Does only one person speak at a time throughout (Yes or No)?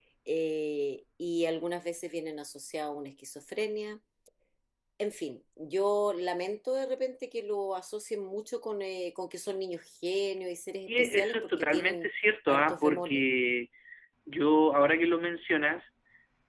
No